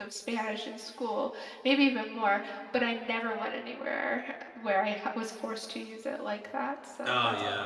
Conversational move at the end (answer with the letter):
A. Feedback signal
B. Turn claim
B